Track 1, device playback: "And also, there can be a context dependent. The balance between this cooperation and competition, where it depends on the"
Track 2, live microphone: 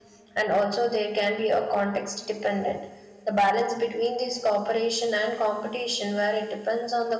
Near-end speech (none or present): none